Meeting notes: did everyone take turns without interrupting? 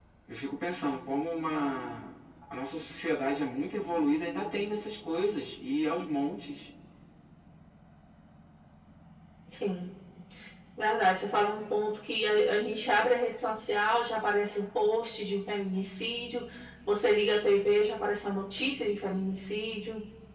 Yes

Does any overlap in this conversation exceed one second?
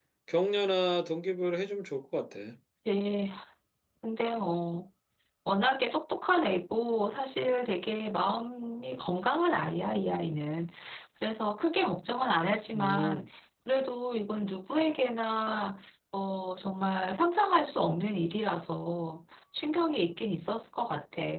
No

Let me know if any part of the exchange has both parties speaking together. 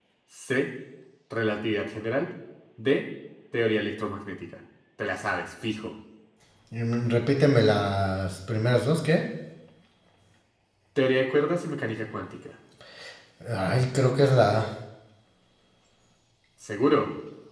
No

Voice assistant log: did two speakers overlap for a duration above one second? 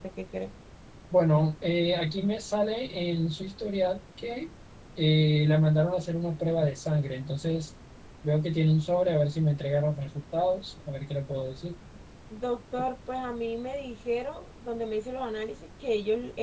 No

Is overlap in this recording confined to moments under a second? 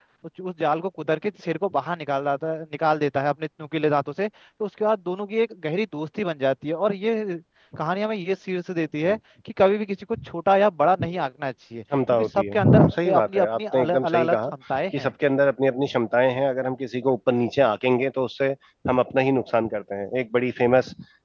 No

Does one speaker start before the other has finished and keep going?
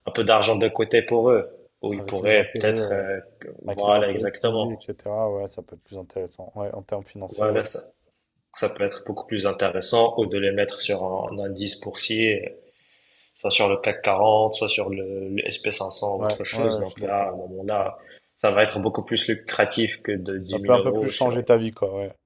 Yes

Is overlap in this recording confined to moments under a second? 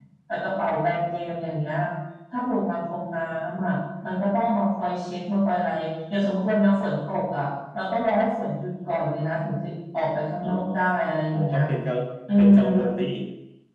Yes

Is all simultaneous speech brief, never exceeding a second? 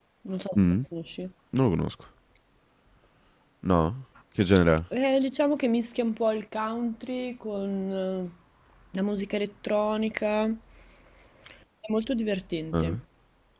Yes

